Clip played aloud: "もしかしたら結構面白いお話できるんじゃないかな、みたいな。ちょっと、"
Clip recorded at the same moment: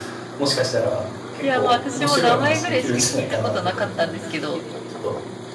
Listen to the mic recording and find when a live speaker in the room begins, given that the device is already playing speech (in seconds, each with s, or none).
1.4 s